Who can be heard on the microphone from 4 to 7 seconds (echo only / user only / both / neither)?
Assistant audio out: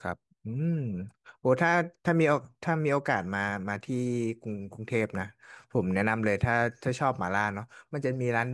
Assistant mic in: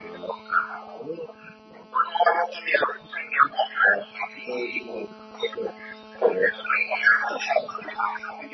echo only